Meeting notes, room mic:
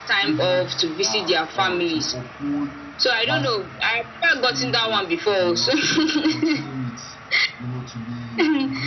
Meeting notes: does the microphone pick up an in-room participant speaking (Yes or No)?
Yes